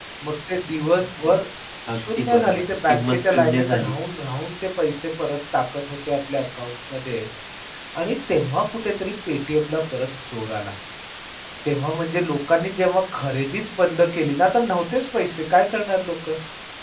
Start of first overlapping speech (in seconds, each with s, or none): 1.9 s